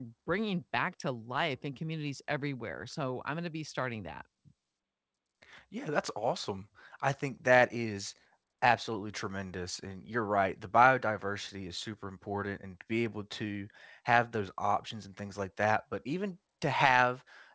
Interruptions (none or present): none